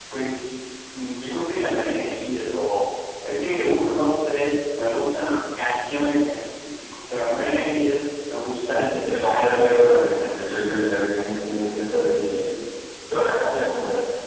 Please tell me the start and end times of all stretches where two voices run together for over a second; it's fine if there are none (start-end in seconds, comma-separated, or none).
8.7-10.4